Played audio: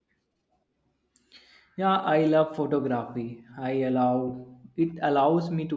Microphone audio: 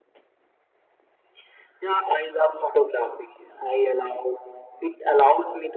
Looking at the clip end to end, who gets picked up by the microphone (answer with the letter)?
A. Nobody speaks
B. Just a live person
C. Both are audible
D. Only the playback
D